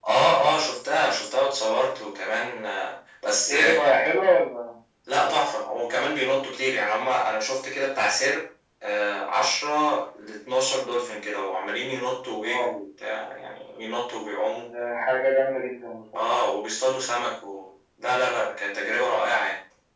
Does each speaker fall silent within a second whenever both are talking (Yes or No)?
Yes